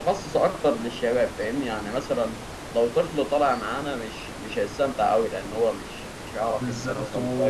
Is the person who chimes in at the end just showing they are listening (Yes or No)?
No